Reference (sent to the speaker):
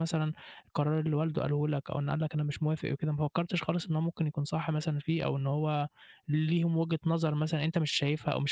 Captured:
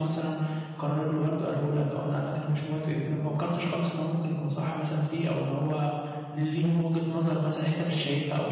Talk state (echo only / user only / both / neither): echo only